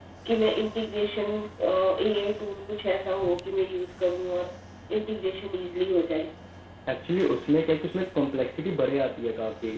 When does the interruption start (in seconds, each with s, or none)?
none